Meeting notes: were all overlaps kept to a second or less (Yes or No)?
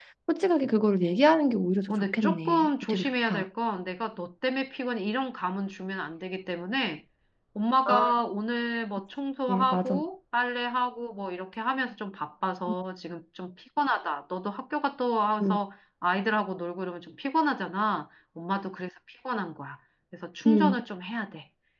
No